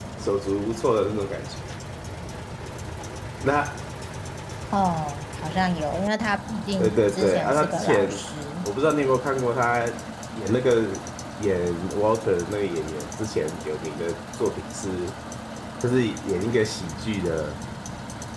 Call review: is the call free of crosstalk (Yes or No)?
No